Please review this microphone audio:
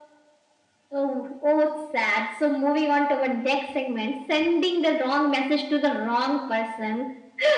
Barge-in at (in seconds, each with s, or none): none